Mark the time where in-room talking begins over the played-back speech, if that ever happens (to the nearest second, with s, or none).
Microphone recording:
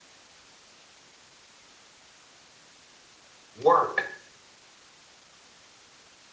4 s